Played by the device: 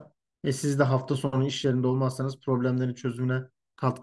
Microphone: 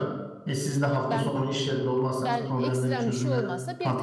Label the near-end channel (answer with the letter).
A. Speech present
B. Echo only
A